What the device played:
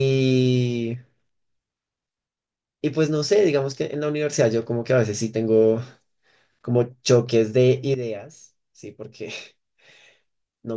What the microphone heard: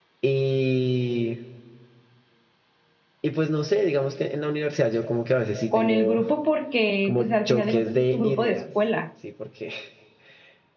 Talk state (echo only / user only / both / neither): both